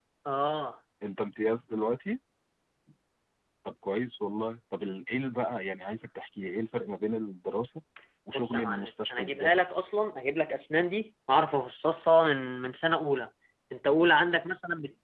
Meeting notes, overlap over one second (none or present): present